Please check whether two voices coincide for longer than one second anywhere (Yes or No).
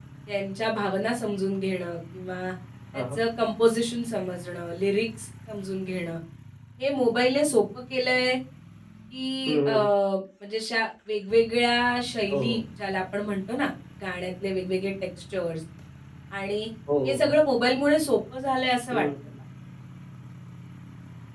No